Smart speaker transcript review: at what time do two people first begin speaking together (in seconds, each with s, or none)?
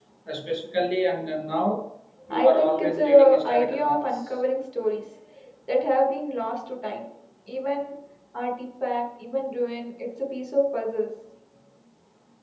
2.3 s